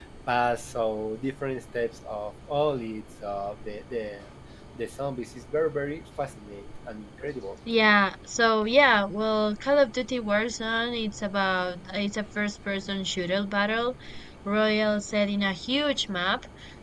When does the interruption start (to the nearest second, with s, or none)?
none